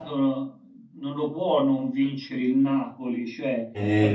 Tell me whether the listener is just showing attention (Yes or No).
Yes